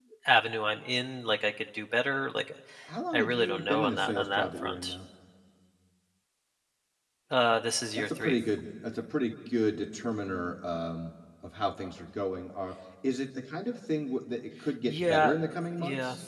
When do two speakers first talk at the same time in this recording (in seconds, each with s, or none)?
3.1 s